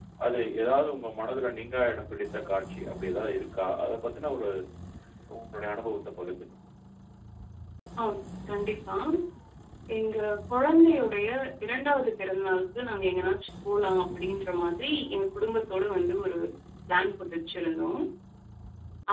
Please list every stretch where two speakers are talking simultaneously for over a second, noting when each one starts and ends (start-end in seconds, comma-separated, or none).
none